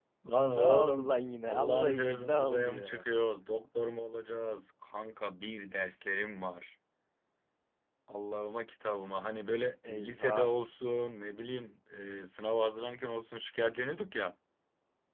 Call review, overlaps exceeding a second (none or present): present